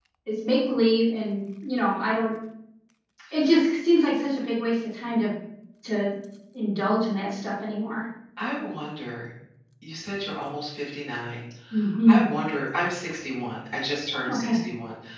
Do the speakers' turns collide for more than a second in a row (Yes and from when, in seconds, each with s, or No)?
No